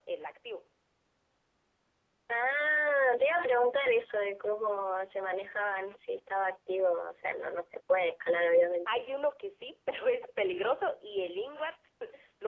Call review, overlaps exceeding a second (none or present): none